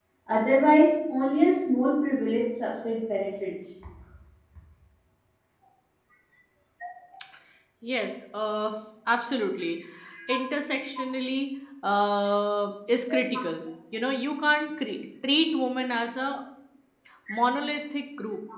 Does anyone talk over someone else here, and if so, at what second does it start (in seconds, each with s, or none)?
none